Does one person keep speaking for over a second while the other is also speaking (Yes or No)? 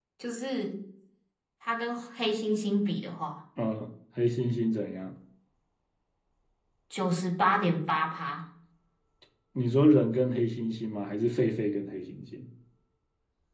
No